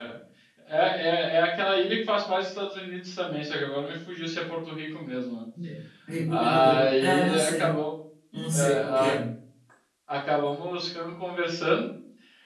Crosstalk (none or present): present